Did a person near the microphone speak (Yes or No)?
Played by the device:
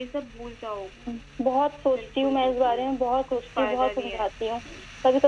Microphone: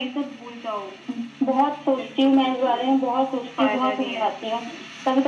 No